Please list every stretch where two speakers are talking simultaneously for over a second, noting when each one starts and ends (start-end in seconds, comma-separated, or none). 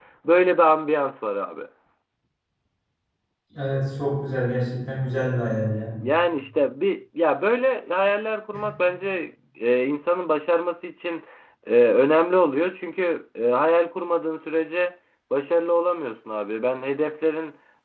none